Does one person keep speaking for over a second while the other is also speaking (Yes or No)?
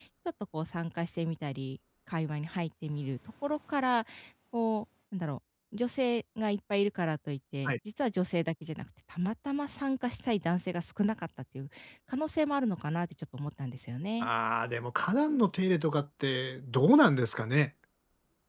No